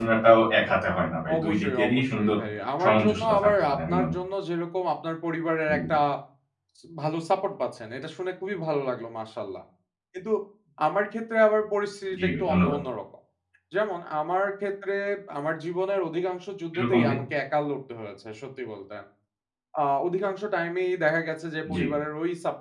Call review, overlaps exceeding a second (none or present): present